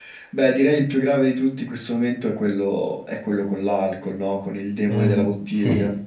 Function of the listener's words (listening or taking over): taking over